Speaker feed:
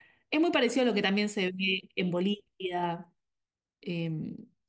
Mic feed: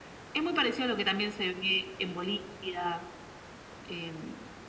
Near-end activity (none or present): none